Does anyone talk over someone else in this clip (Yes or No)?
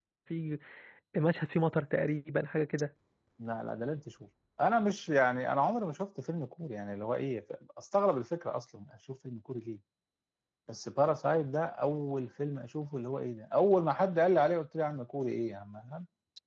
No